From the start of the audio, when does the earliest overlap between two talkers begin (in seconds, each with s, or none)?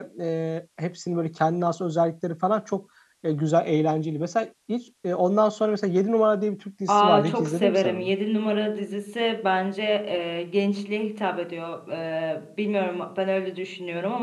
6.9 s